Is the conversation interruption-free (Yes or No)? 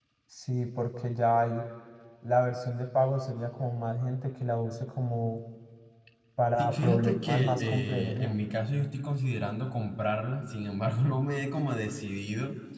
No